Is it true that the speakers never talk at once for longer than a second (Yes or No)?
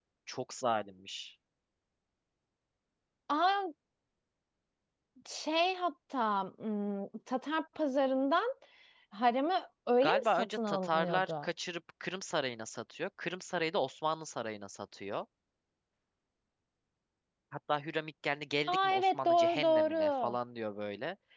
No